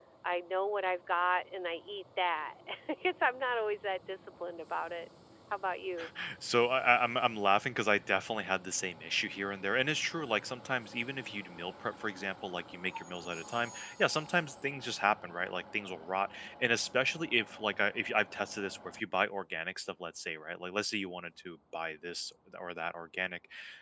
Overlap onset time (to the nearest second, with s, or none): none